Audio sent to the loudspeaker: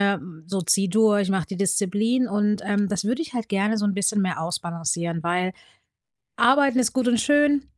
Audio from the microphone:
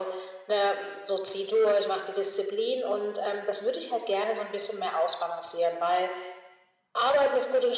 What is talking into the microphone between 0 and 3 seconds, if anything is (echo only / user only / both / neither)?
echo only